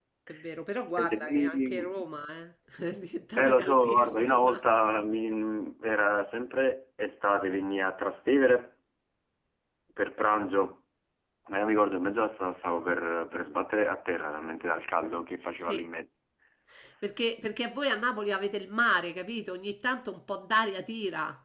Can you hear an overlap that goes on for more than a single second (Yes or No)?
Yes